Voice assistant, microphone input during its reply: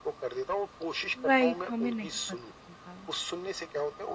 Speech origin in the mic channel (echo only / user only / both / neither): both